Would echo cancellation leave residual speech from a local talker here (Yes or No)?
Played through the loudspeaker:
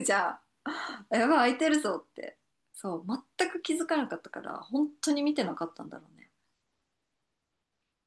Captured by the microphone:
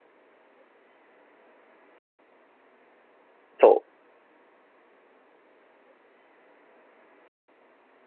Yes